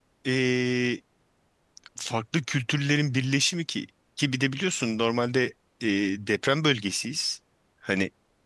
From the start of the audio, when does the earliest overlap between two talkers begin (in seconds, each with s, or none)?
none